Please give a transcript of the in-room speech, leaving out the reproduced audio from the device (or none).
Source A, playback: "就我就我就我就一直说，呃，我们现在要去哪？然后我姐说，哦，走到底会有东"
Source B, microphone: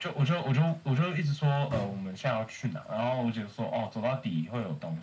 嗯，